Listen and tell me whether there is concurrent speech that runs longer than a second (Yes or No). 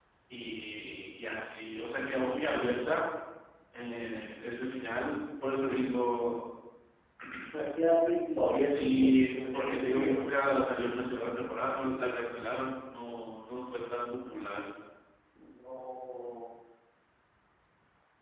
Yes